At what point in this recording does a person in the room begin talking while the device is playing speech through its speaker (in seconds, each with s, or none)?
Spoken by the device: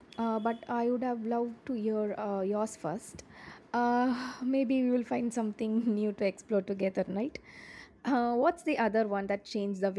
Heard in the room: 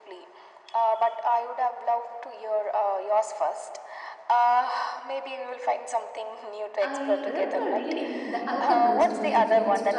6.8 s